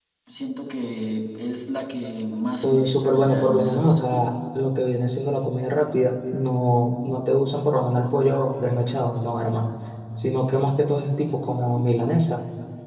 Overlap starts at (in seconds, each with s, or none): 2.6 s